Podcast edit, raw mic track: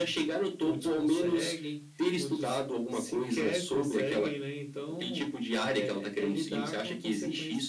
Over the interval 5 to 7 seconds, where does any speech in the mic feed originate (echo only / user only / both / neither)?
echo only